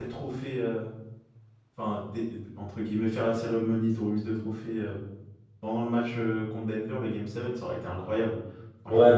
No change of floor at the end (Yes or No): No